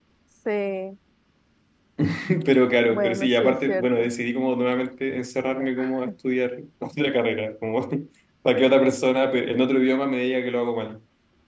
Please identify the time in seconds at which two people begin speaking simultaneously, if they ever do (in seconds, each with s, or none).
2.9 s